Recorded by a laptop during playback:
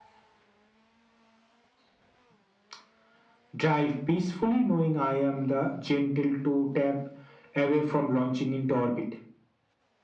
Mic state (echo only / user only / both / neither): echo only